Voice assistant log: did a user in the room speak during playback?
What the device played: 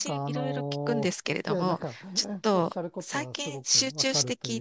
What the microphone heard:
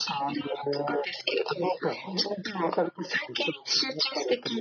No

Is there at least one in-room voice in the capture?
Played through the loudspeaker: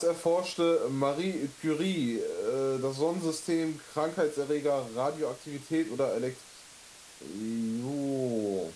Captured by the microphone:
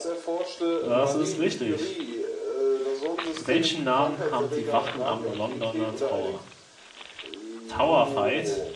Yes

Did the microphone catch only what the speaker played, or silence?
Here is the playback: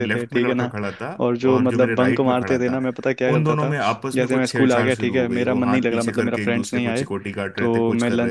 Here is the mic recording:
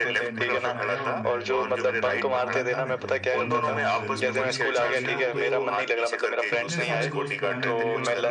No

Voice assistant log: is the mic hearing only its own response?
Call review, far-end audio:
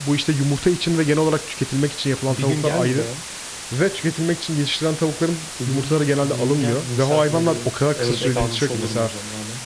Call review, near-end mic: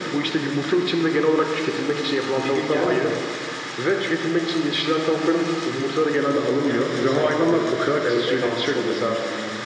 Yes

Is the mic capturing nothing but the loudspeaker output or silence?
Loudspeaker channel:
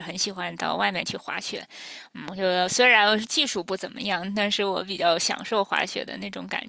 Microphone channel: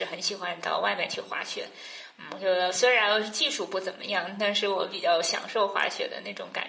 Yes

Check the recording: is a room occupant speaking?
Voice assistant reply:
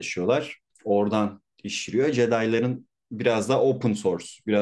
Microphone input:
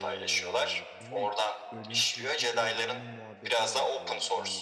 Yes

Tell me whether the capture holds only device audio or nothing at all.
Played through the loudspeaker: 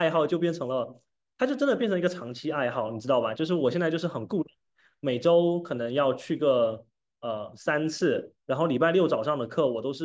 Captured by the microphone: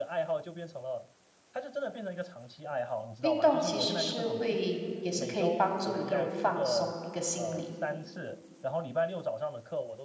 No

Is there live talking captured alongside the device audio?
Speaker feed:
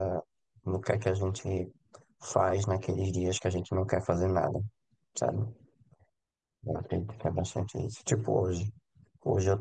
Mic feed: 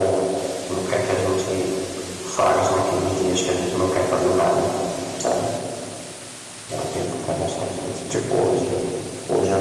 No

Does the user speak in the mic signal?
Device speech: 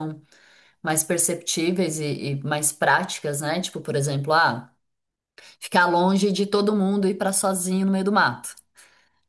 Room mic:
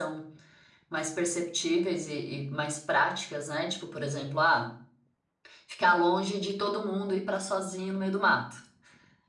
No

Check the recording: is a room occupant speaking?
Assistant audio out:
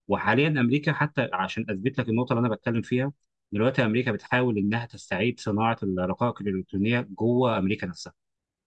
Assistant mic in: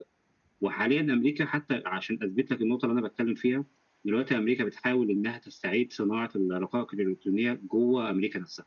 No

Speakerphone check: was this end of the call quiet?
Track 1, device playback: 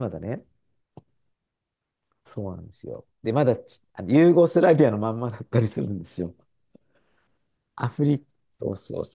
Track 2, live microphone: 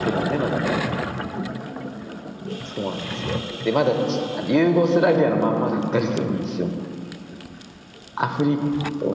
Yes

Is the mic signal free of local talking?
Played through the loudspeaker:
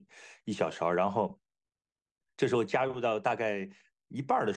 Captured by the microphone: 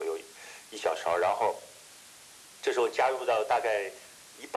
Yes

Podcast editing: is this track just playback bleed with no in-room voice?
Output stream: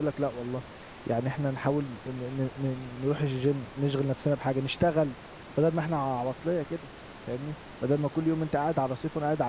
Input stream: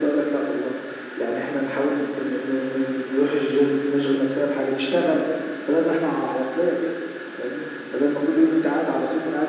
Yes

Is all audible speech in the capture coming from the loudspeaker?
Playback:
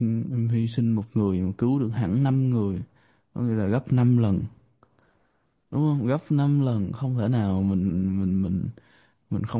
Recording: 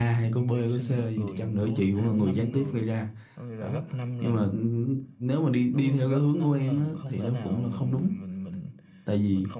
No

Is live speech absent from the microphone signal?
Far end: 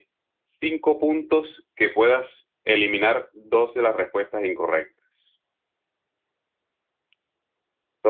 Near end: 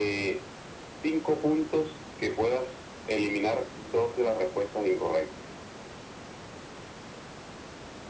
Yes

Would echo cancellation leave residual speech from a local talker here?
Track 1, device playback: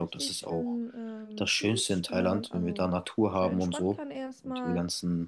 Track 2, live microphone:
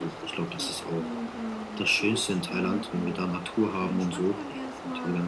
No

